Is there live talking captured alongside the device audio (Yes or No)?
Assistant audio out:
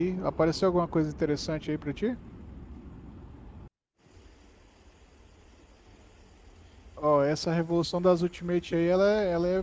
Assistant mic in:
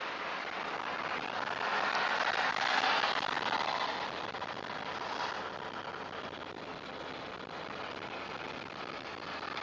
No